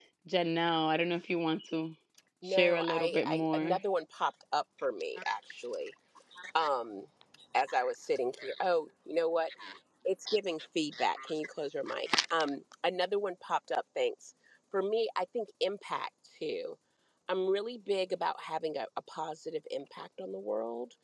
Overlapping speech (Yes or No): Yes